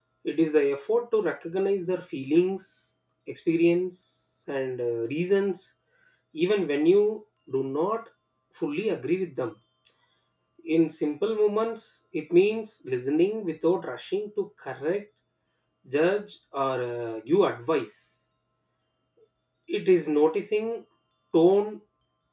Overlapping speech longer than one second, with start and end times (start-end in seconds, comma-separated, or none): none